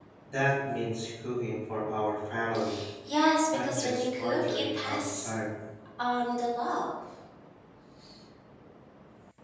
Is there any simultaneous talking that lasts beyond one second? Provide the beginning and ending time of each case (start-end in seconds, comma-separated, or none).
3.5-5.3